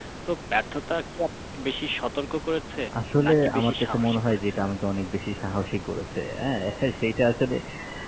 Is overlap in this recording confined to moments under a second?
No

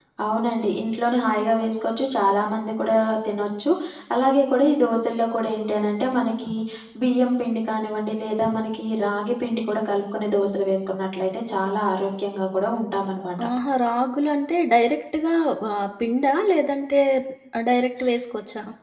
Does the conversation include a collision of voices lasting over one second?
No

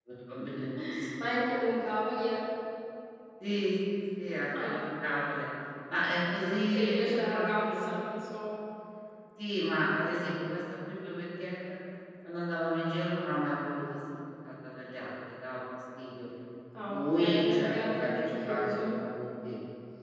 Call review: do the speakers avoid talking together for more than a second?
No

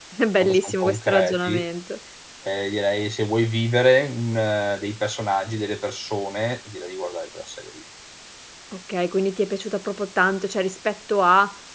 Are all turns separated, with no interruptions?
No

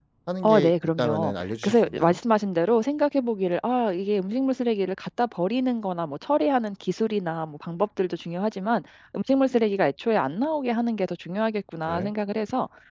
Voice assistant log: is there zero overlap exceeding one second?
No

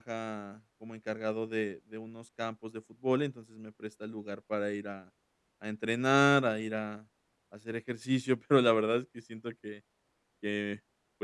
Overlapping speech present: No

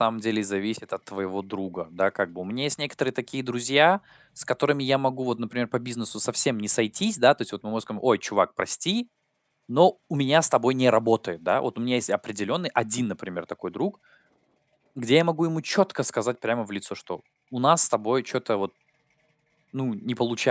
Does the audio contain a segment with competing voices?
No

